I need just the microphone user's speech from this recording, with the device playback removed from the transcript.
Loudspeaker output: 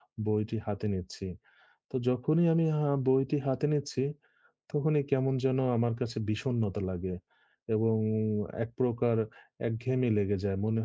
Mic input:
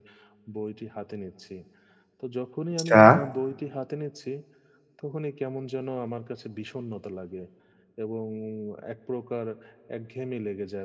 আচ্ছা,

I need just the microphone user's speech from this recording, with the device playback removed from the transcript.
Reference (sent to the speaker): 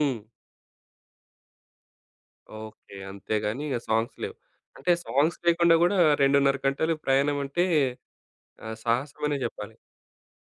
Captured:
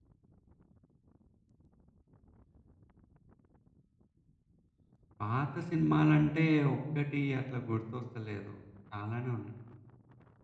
పాత సినిమాలంటే ఒక్కటి అట్లా గుర్తొస్తలేదు. చాలానే ఉన్నాయి.

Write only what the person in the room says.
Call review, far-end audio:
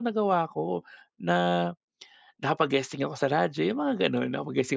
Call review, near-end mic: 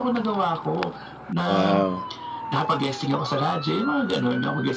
Wow,

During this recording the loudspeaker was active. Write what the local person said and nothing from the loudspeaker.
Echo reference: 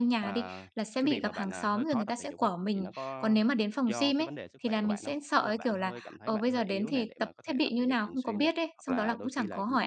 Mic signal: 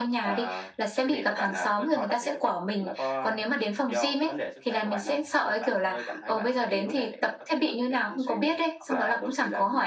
none

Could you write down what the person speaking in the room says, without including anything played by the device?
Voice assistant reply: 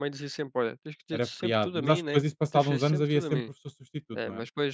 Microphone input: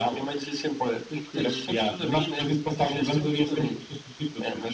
o que

